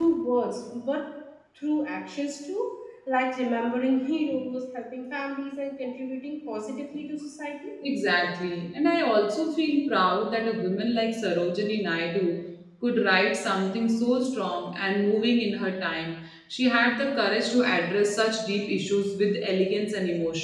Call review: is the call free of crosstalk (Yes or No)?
Yes